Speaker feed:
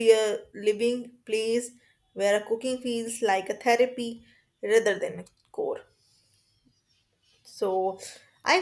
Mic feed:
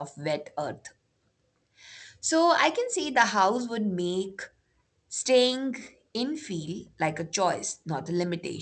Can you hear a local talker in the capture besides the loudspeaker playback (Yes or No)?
Yes